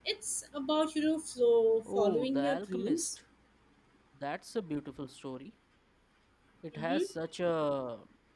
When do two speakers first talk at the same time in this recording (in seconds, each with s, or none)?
1.9 s